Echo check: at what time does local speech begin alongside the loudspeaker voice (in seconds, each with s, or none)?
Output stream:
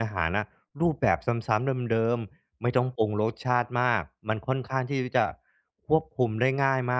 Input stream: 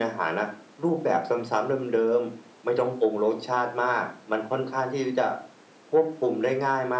none